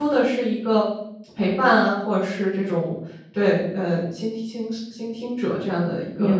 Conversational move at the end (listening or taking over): taking over